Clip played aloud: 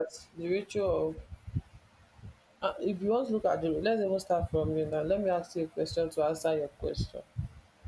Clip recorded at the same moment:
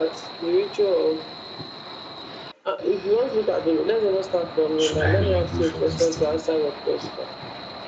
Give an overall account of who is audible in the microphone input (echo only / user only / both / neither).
both